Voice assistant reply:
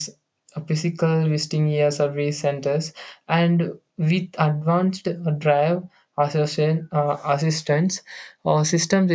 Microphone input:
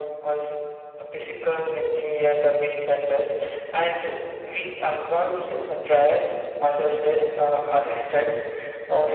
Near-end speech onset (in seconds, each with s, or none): none